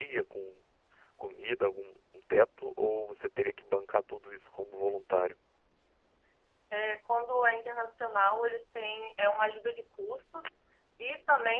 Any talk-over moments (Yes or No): No